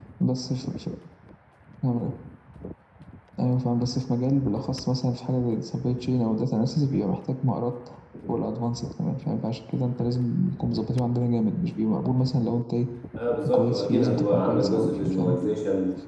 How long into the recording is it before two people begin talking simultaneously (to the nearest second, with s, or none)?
14 s